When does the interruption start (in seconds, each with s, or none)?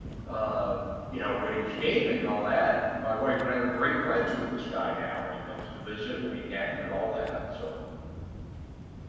none